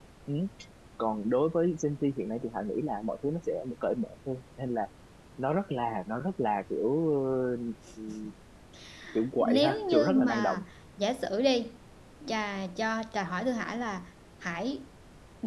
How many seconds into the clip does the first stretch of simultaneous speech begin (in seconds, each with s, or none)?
9.4 s